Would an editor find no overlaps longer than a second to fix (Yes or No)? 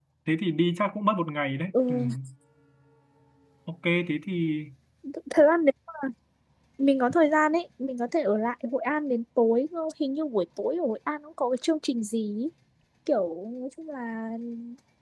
Yes